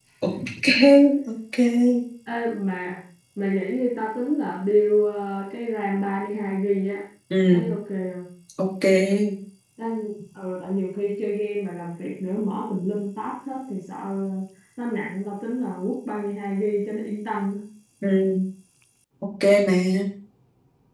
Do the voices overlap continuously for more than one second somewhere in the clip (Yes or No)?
No